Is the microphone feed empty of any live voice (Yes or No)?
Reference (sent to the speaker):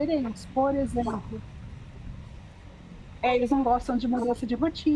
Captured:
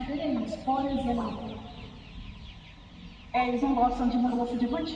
Yes